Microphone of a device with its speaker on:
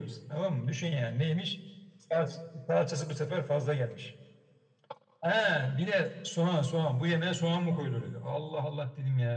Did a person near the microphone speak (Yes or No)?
No